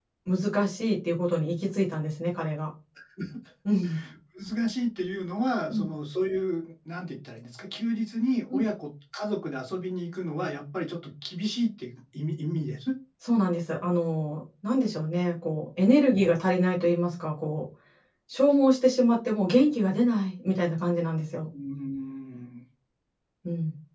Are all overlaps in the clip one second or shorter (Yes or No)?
Yes